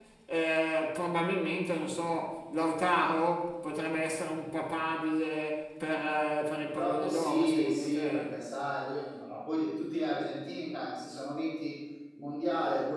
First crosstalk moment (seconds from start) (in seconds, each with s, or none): 6.6 s